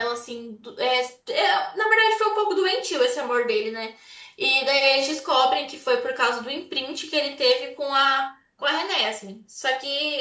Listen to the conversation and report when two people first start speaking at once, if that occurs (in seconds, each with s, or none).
none